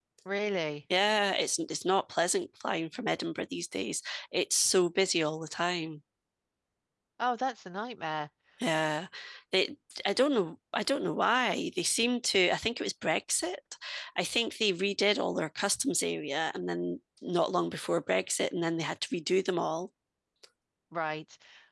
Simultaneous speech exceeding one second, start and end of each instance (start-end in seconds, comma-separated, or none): none